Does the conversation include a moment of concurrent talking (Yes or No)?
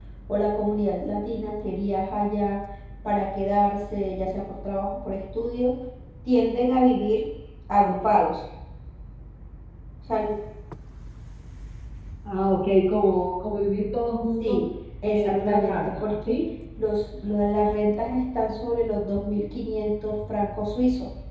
Yes